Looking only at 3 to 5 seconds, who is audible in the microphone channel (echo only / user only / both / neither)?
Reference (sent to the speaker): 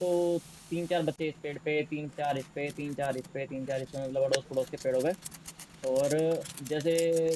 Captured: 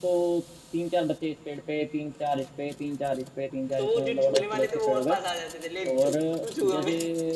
both